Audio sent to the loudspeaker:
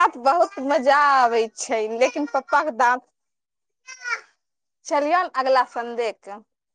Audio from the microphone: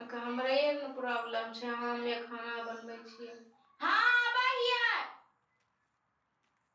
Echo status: none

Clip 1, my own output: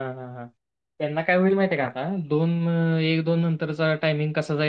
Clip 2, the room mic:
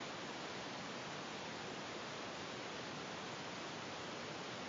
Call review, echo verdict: none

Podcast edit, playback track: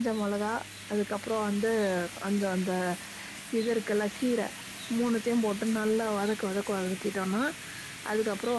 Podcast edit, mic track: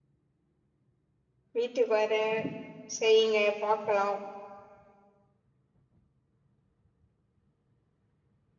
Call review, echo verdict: none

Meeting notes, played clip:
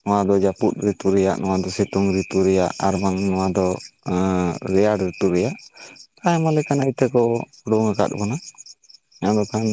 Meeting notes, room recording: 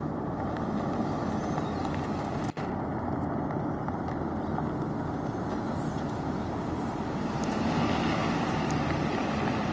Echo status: none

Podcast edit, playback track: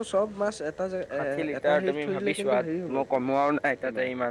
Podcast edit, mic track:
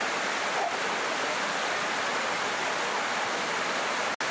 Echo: none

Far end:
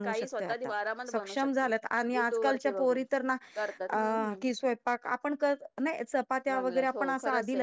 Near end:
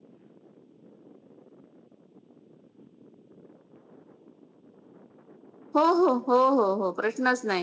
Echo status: none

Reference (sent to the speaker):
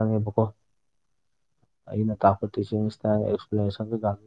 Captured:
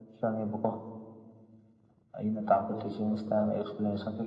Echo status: present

